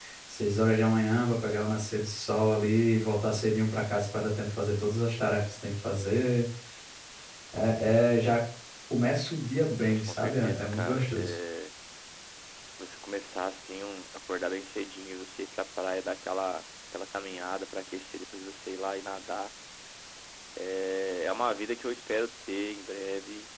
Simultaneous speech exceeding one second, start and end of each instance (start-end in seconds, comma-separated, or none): 9.8-11.3